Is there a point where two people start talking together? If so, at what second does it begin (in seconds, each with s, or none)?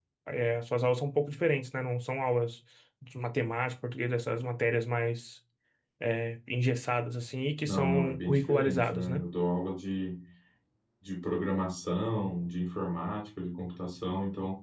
7.7 s